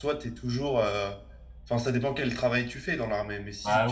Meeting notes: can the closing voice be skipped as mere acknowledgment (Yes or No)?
No